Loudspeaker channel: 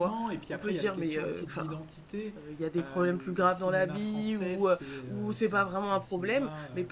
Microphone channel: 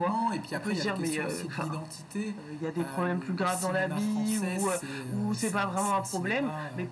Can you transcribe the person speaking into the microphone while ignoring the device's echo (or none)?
none